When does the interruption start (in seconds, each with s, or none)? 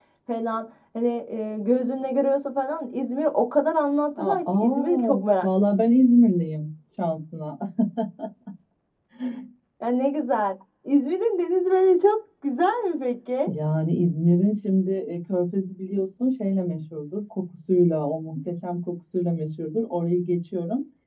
4.2 s